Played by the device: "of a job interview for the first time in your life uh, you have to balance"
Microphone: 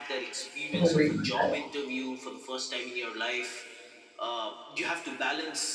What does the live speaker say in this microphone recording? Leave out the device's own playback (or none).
Oh my God.